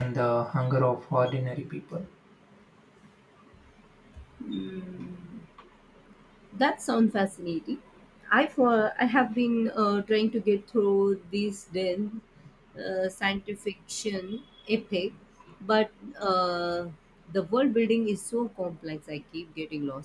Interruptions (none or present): none